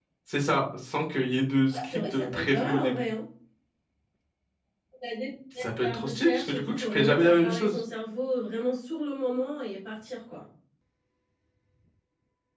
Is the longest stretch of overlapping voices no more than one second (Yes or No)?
No